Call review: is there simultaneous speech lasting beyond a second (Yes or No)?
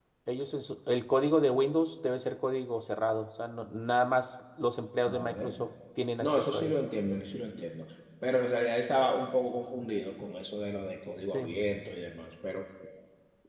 No